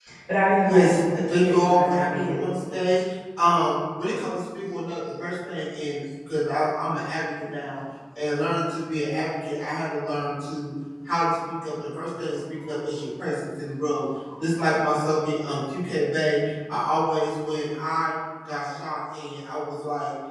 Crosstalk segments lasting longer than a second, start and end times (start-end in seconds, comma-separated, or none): 0.7-2.4